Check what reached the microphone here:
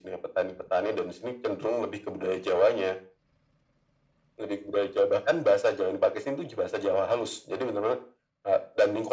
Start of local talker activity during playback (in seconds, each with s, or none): none